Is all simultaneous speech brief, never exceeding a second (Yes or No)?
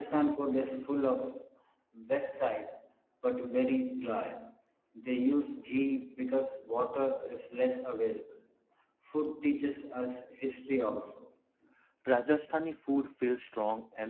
Yes